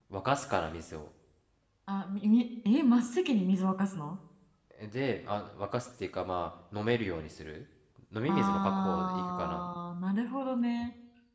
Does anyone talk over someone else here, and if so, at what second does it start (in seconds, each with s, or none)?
8.3 s